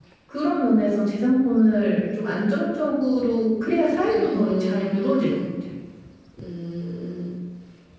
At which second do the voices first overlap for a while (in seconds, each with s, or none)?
4.1 s